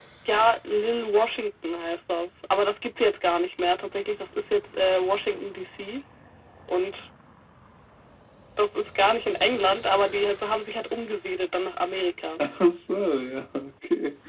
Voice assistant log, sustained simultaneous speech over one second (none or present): none